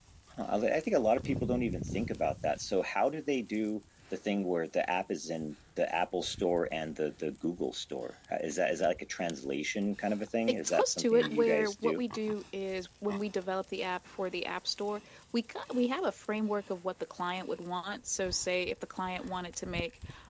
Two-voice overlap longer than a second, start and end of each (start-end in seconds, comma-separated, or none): 10.5-12.0